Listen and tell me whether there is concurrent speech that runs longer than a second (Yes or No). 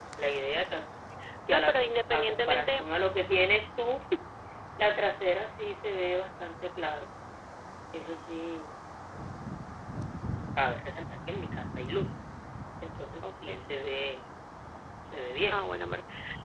Yes